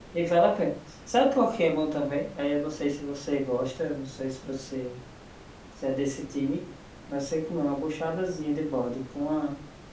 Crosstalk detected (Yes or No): No